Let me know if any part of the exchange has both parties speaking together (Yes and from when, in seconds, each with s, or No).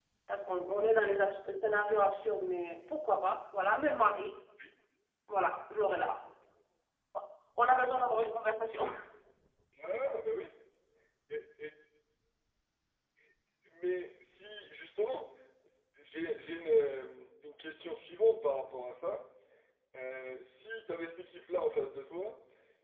No